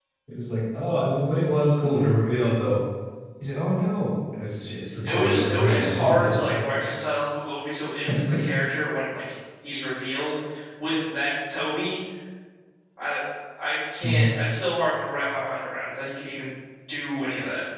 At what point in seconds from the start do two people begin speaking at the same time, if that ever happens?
5.0 s

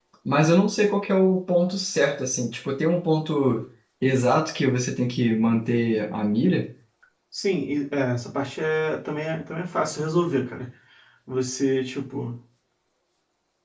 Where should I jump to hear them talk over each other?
none

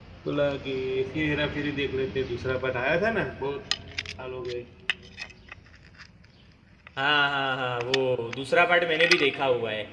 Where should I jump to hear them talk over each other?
none

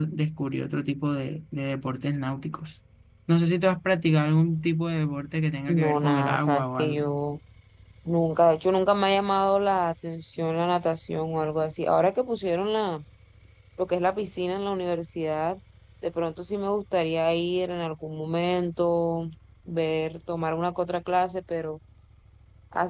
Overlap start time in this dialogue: 5.7 s

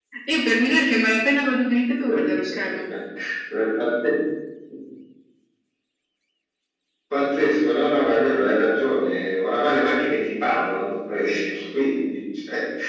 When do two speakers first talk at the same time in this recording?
none

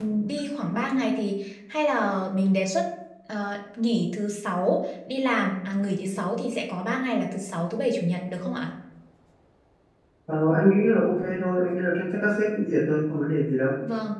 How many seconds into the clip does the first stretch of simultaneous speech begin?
none

